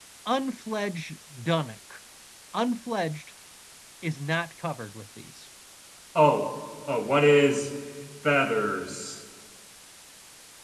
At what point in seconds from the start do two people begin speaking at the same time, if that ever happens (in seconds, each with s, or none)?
none